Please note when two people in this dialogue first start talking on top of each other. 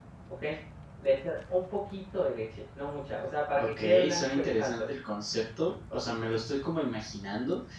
3.6 s

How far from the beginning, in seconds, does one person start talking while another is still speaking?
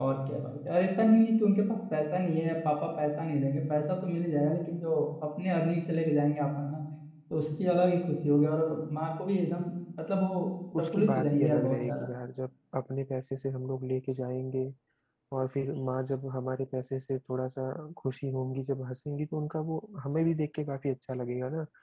10.7 s

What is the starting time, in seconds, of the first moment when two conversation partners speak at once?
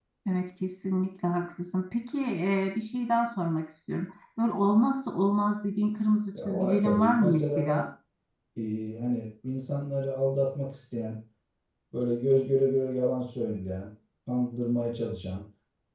6.4 s

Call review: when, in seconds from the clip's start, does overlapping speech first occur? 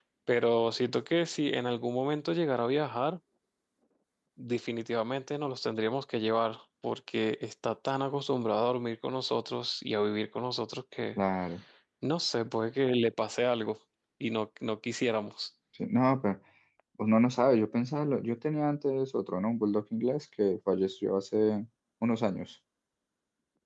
none

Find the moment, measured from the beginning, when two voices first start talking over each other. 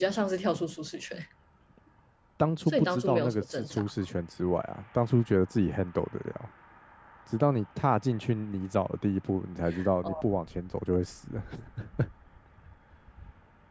2.7 s

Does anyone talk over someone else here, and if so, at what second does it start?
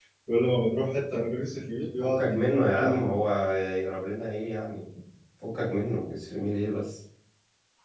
2.0 s

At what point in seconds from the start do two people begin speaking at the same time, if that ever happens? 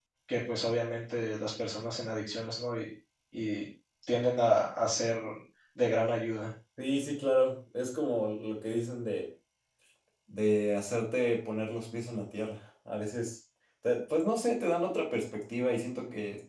none

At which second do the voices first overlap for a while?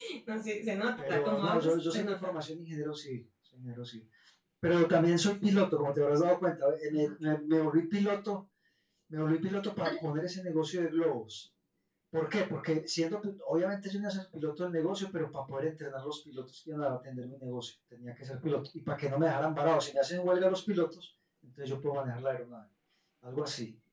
1.0 s

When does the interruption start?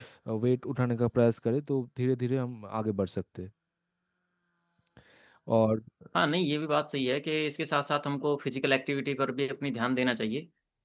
none

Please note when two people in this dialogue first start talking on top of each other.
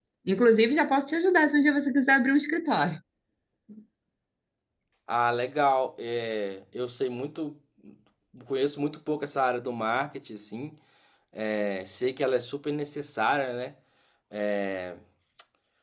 none

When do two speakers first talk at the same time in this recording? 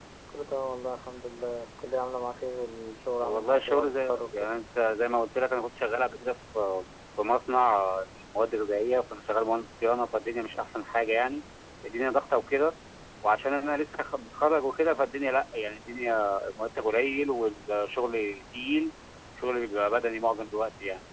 3.2 s

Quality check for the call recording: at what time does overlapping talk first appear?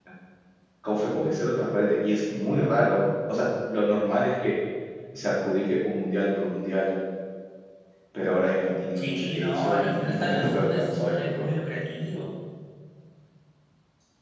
9.0 s

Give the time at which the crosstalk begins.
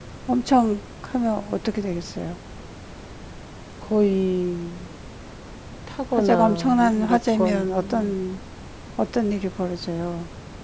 6.2 s

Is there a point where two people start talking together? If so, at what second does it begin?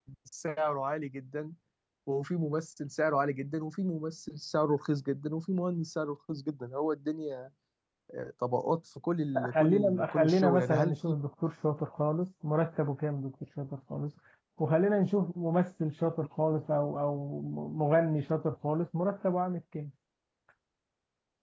9.3 s

